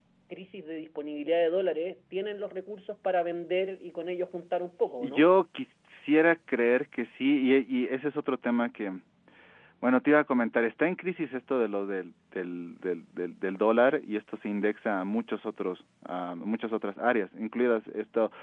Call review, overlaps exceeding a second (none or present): none